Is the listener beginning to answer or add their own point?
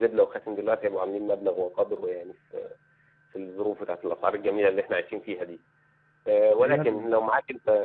No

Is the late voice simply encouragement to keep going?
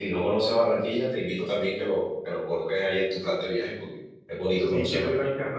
No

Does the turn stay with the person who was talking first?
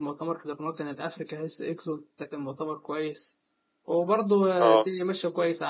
Yes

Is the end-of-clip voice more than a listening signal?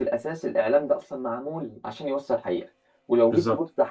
No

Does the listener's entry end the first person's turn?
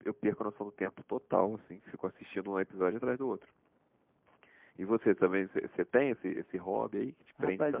Yes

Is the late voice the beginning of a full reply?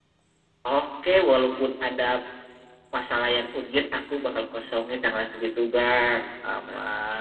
Yes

